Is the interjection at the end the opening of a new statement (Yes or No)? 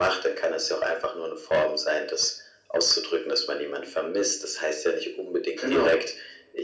No